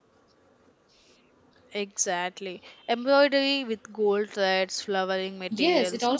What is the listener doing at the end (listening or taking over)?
taking over